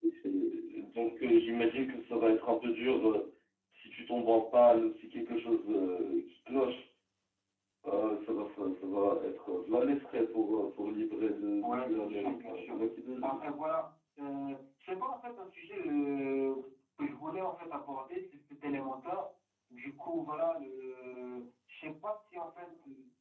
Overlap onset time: 11.6 s

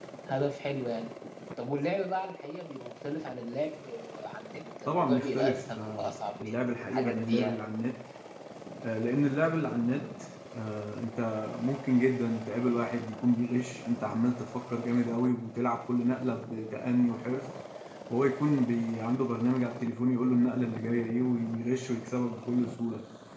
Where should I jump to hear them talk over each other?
4.9 s

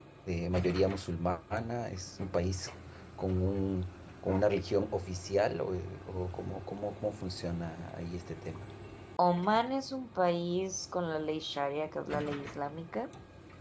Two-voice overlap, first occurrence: none

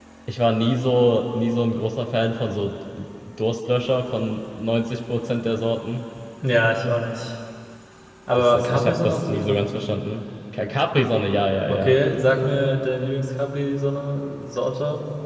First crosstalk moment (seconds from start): 8.4 s

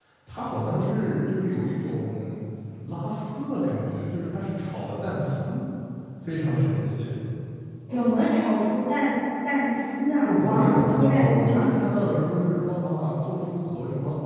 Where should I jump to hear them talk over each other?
10.2 s

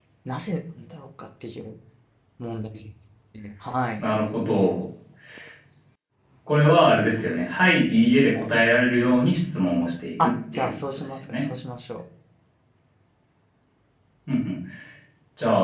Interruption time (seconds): 10.2 s

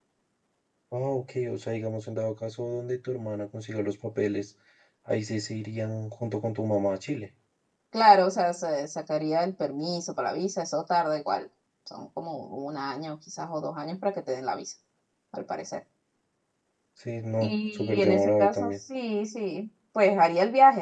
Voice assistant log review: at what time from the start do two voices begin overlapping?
17.4 s

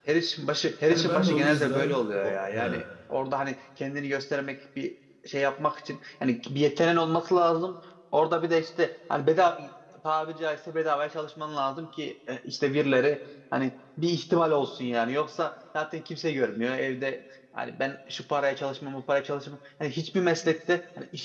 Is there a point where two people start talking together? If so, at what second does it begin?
0.9 s

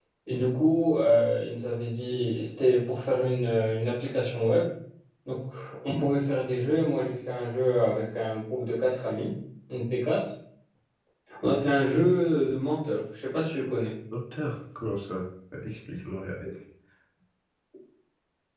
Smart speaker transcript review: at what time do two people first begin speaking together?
none

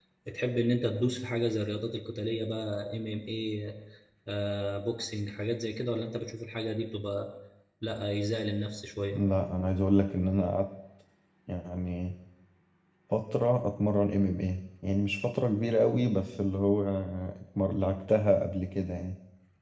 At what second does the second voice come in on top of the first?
none

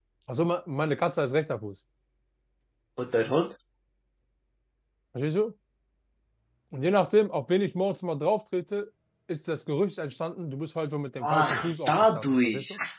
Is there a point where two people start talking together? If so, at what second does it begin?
11.2 s

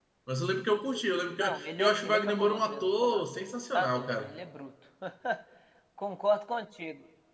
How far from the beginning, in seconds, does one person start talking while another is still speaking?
1.4 s

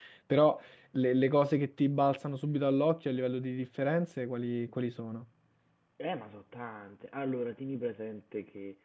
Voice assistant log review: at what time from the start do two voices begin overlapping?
none

